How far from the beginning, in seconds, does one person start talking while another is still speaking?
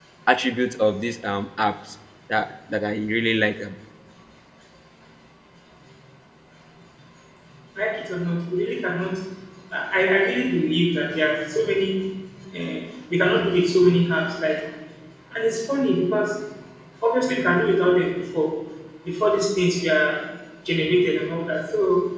none

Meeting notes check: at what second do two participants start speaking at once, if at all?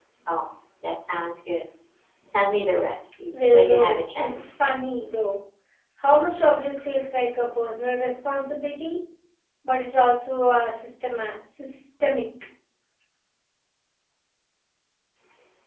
3.3 s

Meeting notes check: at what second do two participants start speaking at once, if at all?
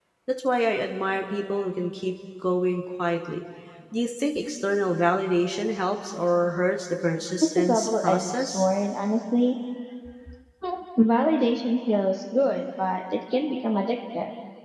7.4 s

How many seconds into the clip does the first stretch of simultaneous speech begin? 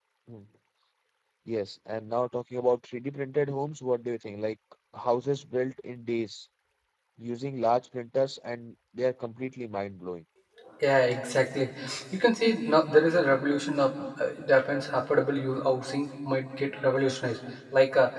none

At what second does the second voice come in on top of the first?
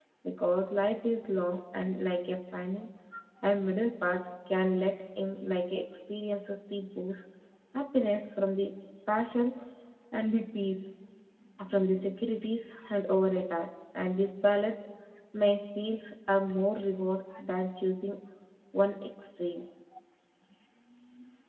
none

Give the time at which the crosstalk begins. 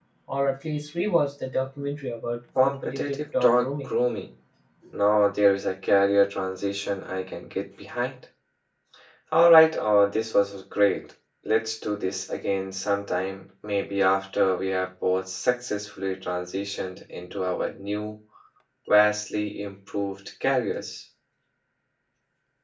2.5 s

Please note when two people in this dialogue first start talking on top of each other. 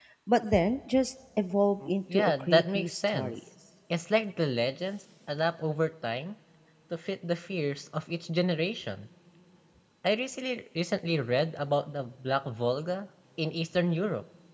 1.8 s

